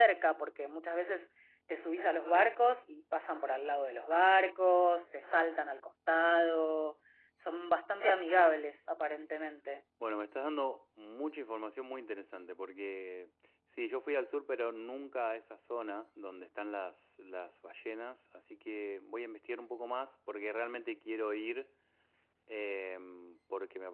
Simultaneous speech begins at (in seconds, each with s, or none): none